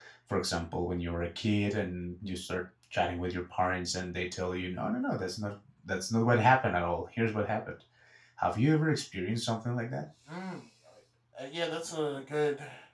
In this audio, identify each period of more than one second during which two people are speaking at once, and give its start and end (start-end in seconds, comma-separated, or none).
none